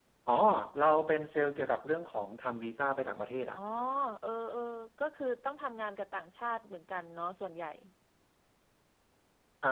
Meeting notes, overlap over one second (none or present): none